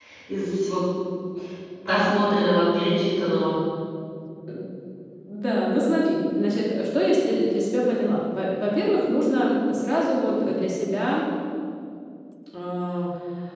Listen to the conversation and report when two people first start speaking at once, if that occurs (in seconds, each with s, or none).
none